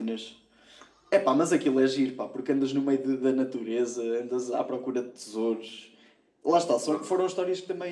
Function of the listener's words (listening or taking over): listening